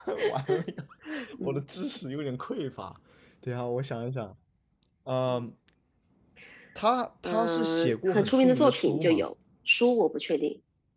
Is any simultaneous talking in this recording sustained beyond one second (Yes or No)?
Yes